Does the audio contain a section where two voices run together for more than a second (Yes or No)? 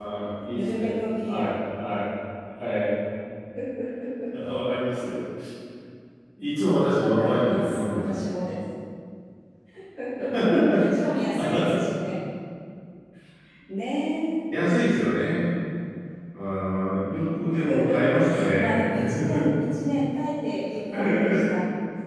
Yes